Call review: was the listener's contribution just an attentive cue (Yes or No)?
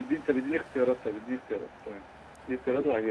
No